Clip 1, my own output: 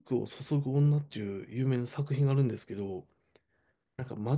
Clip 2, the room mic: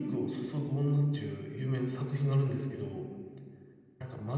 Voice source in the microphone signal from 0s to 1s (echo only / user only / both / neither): echo only